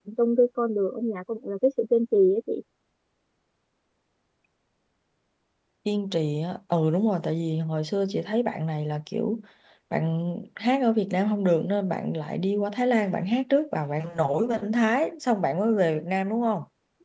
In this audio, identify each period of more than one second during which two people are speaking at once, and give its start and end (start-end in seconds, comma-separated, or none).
none